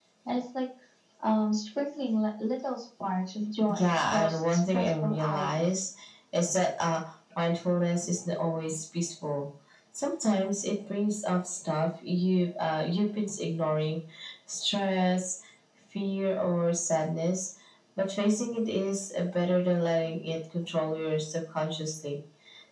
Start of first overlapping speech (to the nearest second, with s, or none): 4 s